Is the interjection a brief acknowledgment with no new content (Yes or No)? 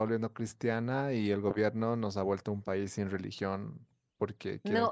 No